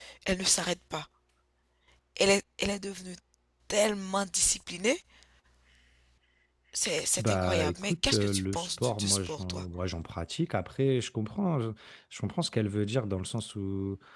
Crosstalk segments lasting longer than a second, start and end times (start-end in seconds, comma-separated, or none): 7.2-9.6